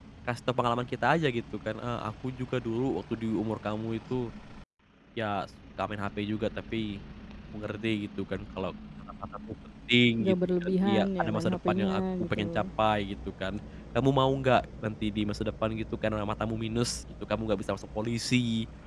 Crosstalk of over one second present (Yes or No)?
Yes